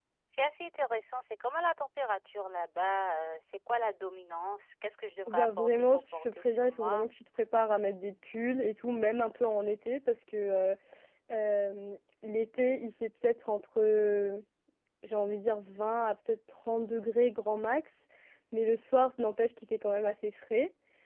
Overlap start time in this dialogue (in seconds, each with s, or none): 5.3 s